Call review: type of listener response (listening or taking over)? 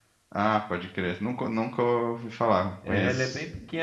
taking over